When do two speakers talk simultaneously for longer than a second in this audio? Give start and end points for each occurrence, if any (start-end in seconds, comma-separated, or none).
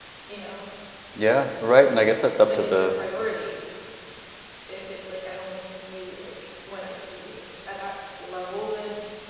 none